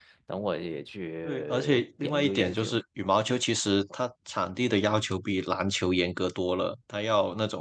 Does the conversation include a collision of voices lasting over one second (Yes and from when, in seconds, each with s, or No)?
Yes, from 1.2 s